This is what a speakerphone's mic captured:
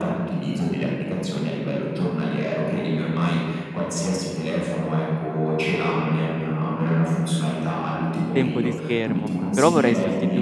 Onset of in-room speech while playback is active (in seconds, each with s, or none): 8.3 s